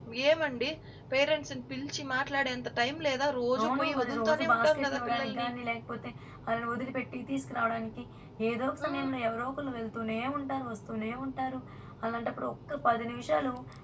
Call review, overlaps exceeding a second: present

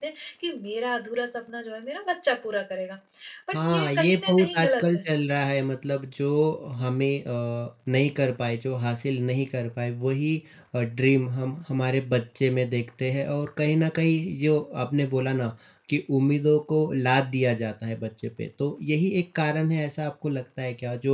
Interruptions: present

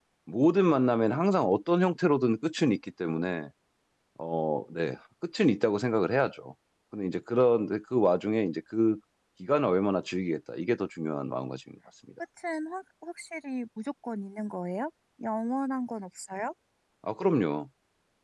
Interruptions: none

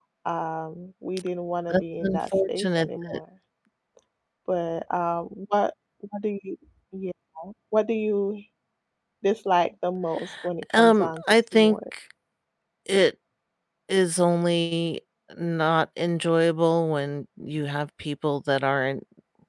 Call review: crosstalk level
present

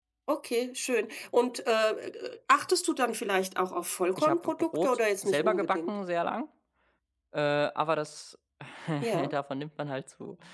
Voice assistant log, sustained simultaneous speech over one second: present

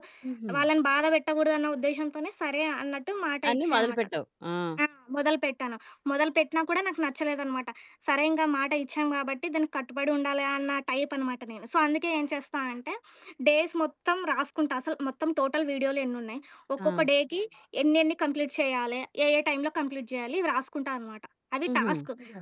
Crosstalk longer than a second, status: none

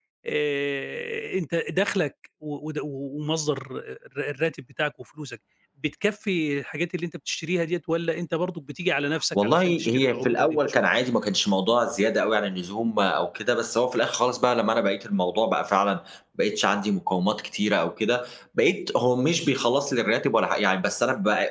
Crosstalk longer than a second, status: present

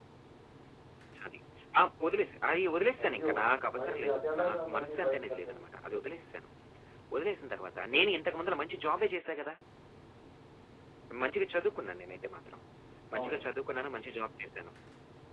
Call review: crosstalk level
present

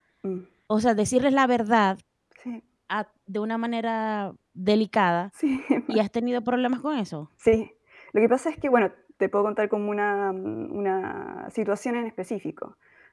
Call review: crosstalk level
none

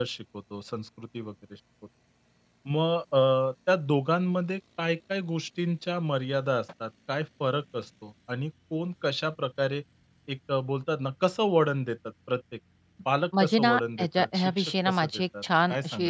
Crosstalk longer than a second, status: present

